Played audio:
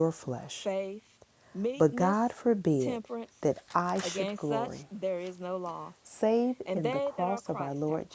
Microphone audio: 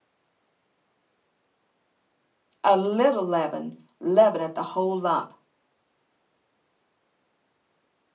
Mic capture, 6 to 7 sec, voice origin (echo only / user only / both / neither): neither